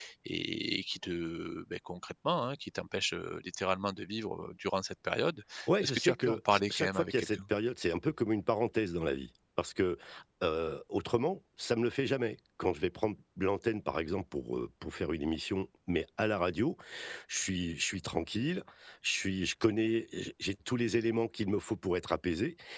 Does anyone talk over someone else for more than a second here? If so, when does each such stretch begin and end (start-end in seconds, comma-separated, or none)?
5.8-7.4